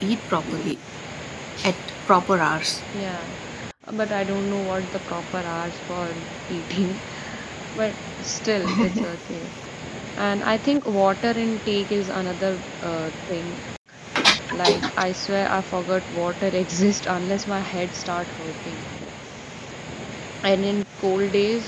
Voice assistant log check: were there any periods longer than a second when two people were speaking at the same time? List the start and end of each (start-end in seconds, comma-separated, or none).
none